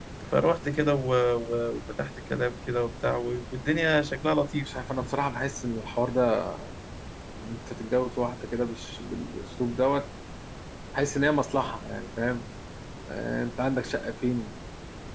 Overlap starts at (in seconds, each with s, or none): none